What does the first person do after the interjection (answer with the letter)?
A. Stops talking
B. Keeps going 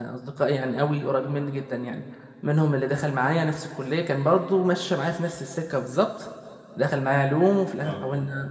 B